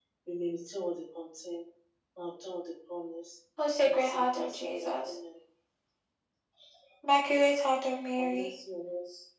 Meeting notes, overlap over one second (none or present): present